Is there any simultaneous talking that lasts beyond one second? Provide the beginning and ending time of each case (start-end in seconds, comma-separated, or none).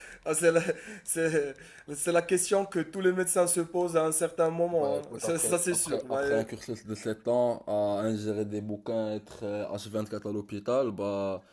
4.8-6.4